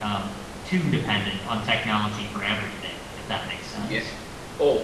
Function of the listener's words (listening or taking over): taking over